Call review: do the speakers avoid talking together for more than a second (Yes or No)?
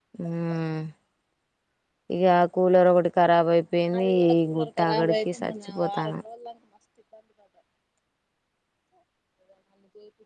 No